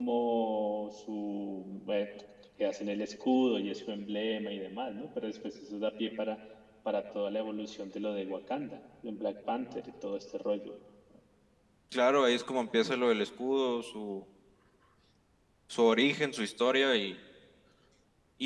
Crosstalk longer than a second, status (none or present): none